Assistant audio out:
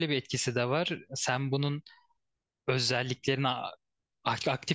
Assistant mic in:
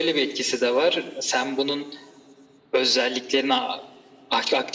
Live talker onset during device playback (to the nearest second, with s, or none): none